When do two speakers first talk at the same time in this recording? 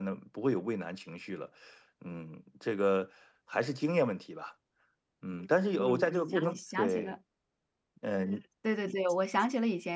6 s

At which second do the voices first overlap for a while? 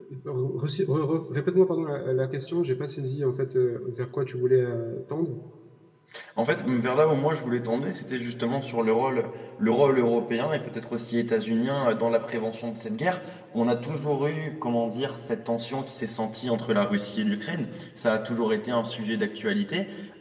none

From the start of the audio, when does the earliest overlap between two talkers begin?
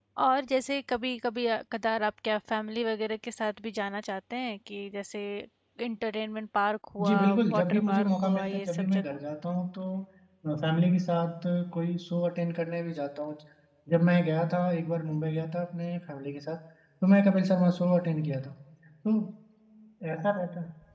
7 s

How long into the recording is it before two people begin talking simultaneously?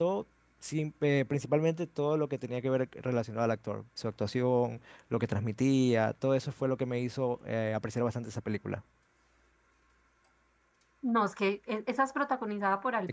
none

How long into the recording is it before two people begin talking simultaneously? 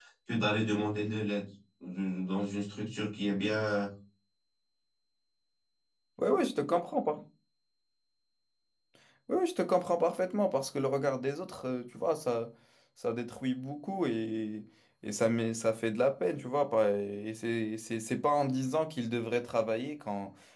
none

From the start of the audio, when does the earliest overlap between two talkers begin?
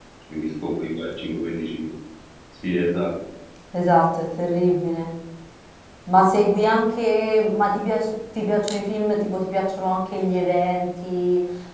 none

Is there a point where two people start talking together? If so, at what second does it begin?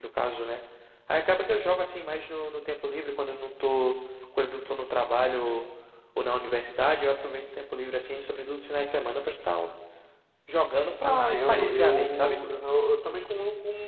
11 s

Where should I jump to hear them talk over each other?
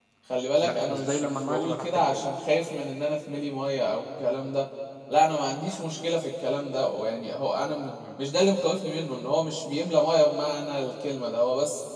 1 s

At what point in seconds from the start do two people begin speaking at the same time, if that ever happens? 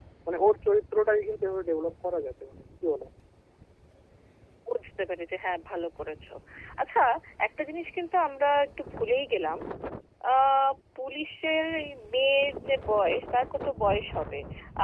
none

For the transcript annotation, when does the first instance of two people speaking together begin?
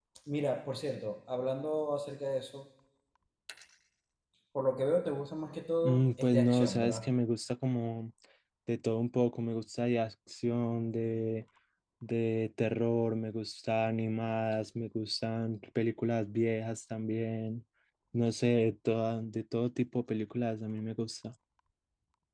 6 s

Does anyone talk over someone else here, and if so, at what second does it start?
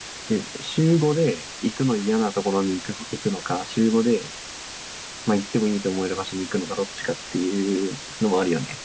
none

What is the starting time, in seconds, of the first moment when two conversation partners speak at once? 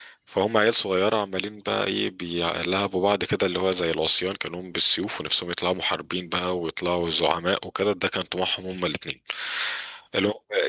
none

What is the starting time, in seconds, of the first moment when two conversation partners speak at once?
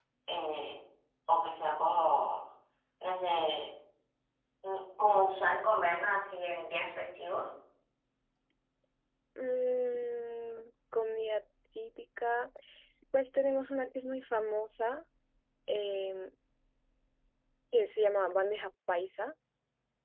none

